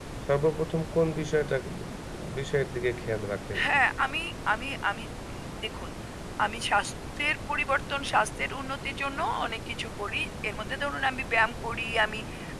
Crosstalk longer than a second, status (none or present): none